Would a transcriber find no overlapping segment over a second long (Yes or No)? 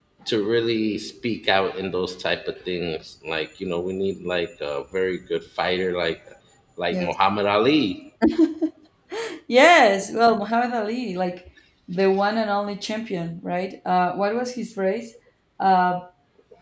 Yes